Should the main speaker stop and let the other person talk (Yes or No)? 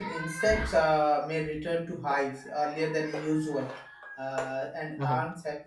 No